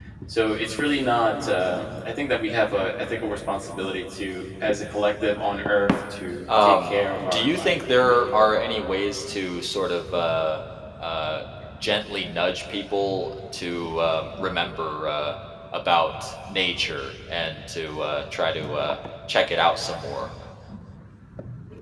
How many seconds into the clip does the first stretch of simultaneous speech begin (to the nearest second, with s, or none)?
6 s